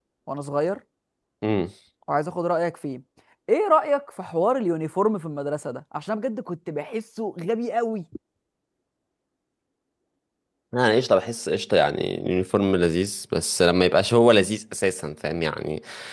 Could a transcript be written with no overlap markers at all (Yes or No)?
Yes